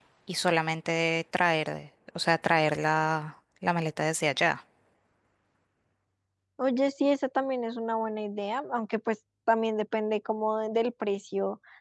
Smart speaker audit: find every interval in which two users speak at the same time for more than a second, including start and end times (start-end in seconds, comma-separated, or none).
none